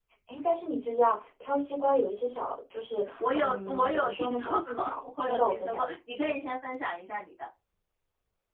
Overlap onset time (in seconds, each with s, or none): 3.2 s